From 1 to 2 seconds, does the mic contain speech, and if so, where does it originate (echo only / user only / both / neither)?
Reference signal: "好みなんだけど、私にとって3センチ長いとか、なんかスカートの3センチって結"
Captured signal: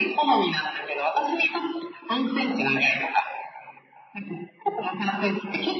echo only